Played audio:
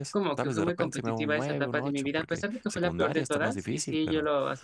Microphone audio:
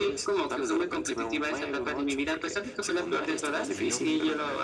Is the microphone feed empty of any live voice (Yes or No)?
No